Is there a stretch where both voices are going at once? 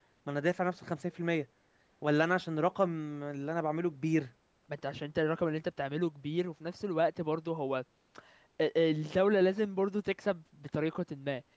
No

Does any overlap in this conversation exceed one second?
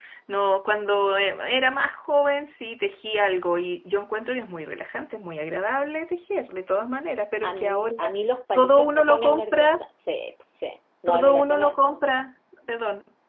Yes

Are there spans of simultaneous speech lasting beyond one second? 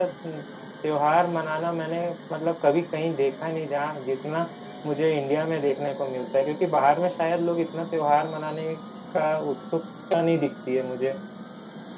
No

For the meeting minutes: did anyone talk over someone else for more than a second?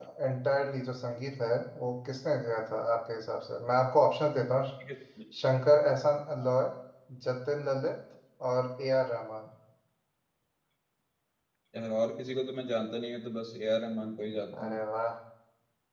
No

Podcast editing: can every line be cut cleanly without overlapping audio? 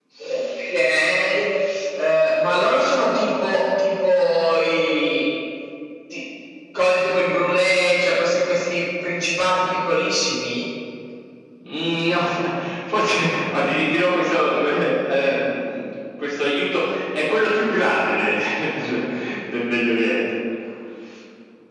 Yes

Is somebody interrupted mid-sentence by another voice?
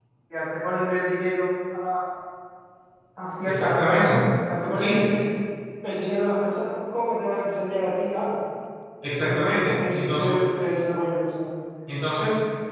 Yes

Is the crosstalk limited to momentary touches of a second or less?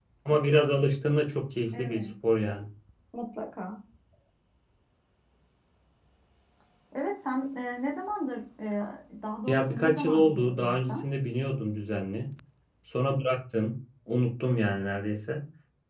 No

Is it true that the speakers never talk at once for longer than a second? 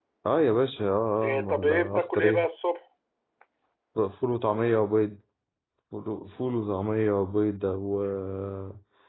No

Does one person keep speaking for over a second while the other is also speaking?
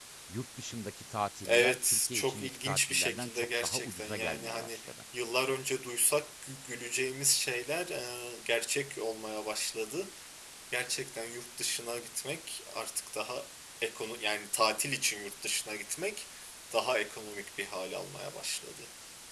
Yes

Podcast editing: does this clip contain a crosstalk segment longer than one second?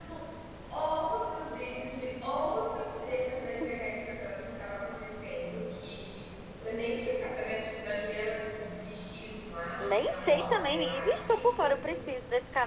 Yes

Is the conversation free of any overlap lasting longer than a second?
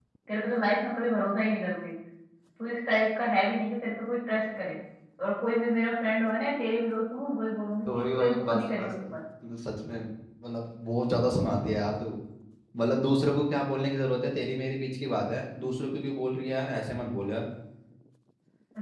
No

